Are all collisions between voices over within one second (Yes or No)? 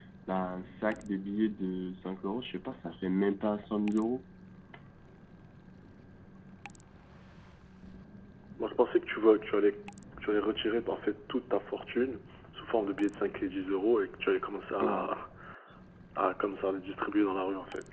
Yes